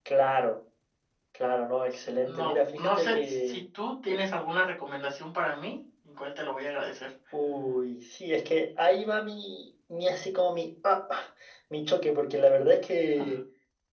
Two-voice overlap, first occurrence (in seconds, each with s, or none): 1.9 s